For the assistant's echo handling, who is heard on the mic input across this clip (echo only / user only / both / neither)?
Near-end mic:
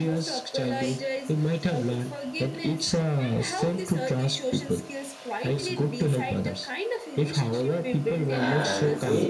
both